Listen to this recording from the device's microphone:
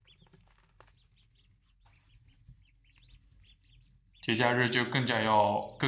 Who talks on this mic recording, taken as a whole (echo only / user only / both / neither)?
user only